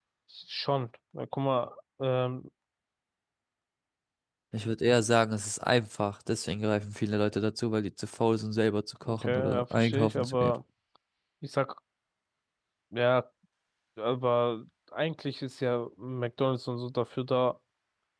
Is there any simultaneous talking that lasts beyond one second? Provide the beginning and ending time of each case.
9.0-10.6

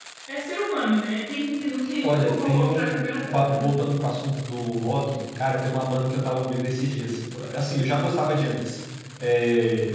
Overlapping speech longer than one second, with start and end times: 2.0-3.7

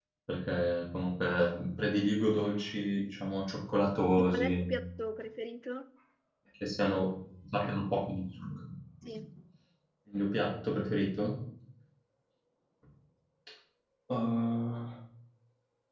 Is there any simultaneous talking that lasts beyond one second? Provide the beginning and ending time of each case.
none

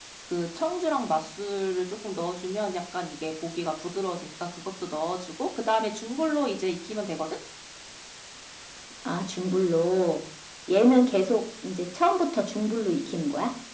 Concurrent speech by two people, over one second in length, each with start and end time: none

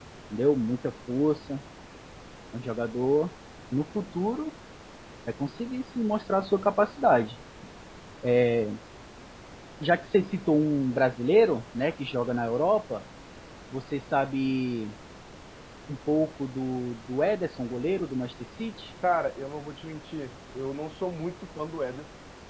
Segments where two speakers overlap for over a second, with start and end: none

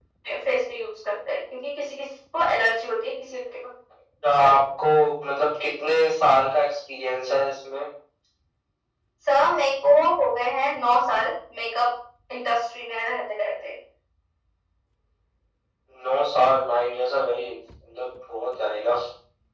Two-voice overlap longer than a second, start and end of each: none

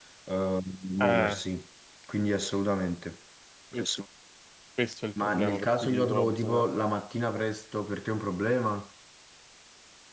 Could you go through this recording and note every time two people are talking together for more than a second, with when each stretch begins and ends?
5.2-6.6

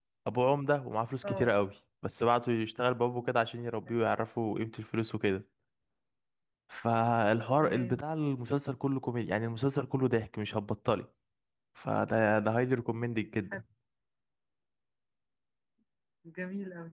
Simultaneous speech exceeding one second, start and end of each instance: none

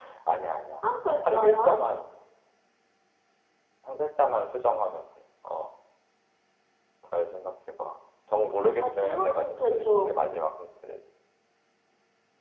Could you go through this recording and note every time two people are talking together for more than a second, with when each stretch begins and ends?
8.8-10.1

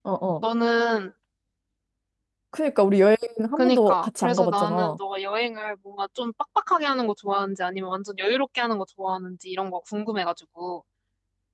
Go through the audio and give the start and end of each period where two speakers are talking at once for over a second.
3.6-5.0

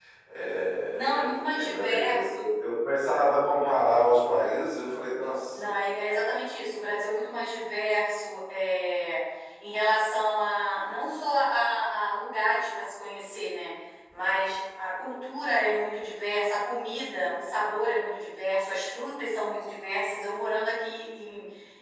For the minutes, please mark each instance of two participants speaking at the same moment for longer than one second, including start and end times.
0.9-2.2

